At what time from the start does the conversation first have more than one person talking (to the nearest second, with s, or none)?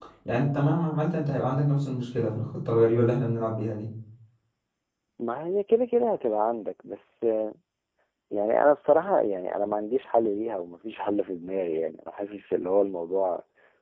none